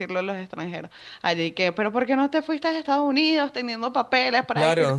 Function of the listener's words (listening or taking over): taking over